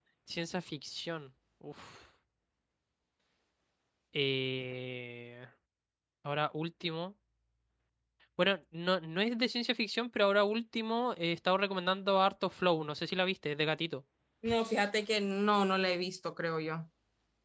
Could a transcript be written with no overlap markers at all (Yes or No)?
Yes